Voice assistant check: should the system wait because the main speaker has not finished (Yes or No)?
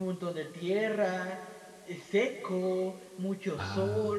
Yes